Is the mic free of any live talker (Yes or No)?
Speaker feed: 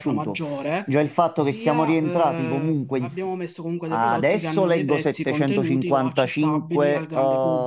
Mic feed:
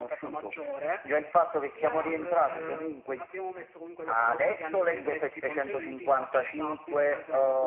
Yes